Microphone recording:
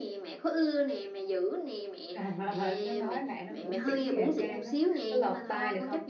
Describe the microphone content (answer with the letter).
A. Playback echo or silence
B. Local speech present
B